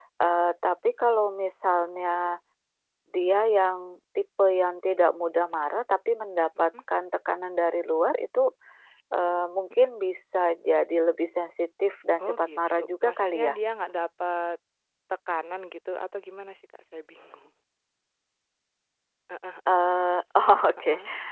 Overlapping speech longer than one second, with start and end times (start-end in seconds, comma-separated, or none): 12.2-13.5